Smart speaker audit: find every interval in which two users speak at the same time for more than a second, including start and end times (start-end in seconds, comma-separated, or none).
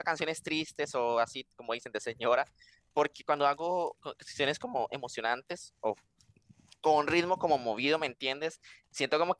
none